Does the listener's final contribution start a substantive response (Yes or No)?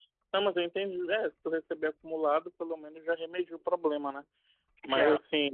No